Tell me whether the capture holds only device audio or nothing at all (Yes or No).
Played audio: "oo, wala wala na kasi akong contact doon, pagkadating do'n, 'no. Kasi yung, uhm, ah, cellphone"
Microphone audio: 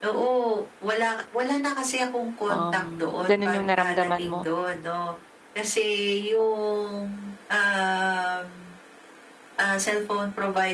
No